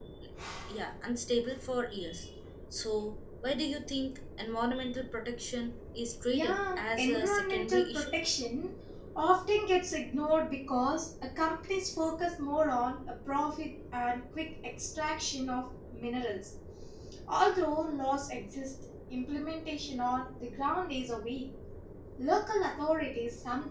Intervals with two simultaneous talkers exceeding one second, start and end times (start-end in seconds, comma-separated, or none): 6.3-8.1